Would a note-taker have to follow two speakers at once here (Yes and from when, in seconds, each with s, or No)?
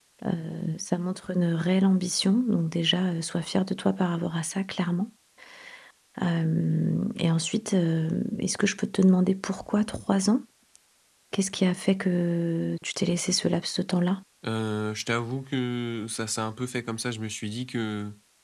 No